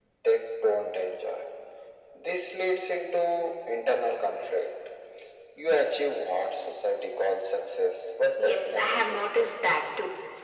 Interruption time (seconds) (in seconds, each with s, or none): 8.4 s